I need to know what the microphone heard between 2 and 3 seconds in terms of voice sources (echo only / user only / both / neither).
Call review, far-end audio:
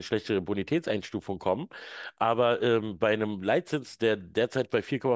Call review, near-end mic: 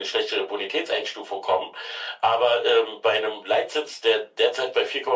echo only